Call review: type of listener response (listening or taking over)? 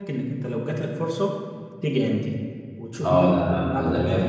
taking over